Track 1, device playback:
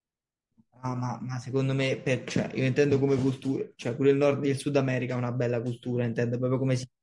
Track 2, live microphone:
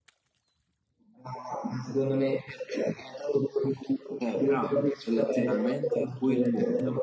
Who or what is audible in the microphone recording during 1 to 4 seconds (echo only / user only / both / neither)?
echo only